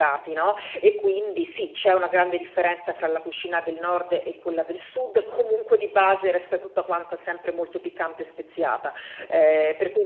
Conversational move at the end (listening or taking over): listening